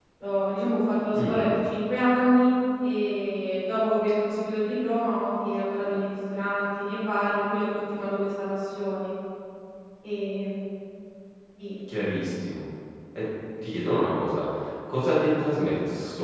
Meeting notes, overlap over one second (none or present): none